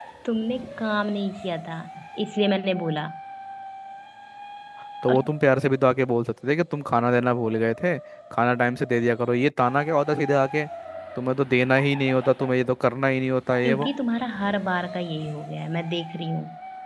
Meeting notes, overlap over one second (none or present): none